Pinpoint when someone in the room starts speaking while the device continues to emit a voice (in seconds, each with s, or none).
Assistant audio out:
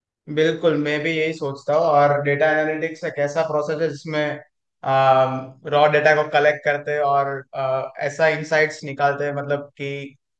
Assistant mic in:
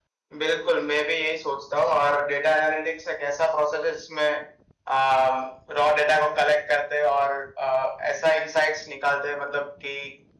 none